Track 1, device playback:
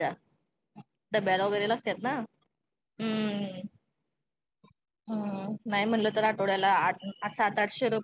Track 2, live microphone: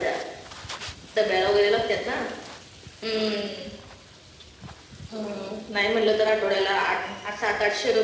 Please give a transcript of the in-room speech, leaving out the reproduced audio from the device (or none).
none